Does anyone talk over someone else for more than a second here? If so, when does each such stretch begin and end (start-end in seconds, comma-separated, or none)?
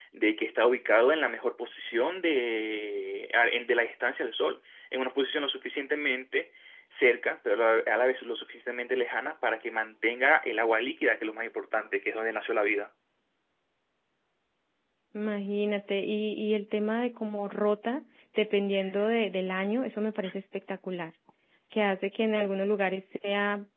none